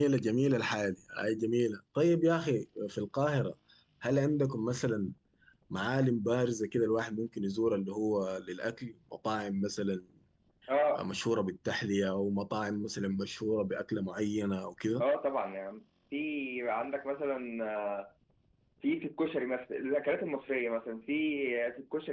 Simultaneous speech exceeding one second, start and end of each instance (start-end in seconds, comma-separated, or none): none